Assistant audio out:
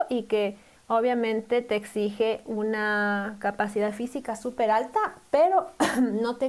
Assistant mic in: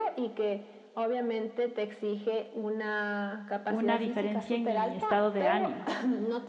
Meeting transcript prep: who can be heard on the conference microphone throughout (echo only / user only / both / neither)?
both